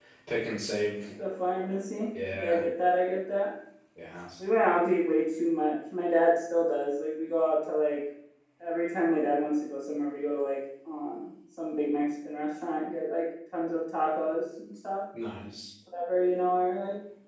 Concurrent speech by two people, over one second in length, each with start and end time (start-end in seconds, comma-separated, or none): none